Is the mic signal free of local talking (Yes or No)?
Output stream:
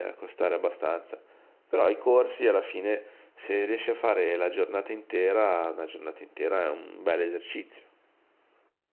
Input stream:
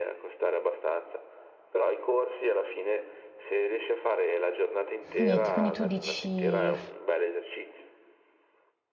No